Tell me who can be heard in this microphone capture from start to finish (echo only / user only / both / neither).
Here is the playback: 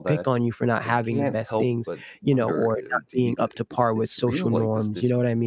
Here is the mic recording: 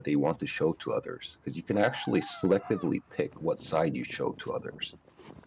user only